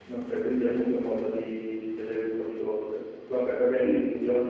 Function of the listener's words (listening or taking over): listening